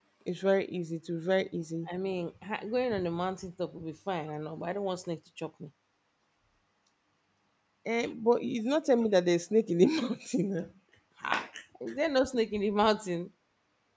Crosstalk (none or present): none